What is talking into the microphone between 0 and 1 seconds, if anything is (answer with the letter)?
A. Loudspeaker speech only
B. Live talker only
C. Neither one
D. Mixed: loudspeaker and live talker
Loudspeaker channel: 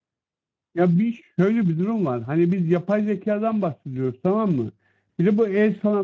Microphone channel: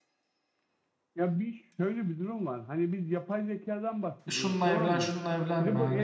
C